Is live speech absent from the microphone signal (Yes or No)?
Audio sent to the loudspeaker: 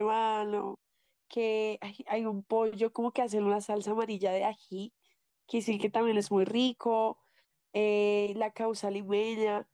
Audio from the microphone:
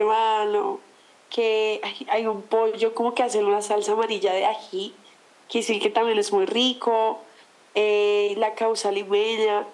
Yes